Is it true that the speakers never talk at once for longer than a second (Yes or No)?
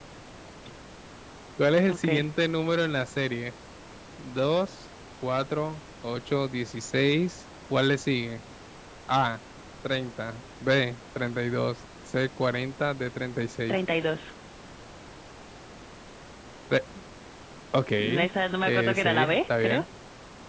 No